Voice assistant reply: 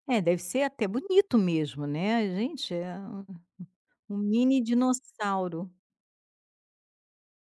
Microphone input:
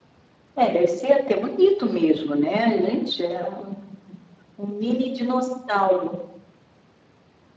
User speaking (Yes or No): No